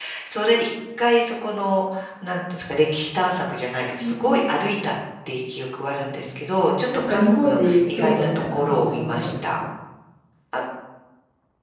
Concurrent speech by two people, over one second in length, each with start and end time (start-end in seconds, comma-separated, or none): 7.1-9.6